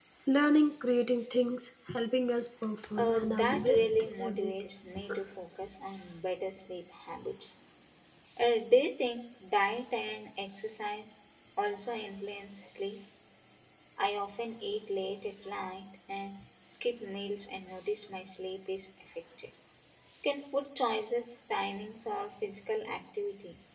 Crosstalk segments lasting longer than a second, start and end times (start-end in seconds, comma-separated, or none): 3.0-4.5